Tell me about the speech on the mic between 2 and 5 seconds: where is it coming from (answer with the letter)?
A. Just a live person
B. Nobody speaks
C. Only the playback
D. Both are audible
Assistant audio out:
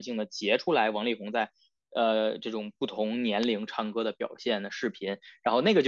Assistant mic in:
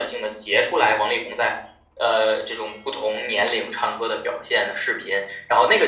C